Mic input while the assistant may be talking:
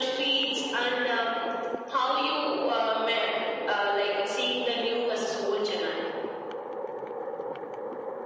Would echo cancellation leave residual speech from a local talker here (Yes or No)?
No